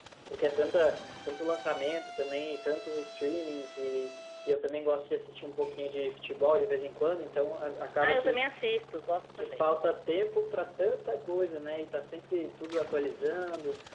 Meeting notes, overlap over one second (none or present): none